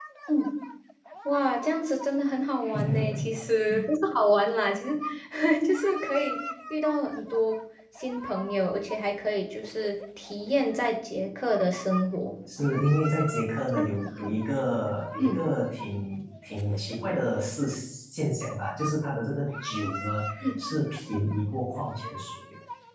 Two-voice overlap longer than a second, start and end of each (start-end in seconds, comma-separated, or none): none